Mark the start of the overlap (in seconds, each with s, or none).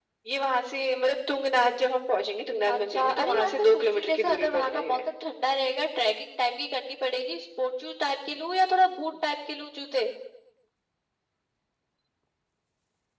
2.7 s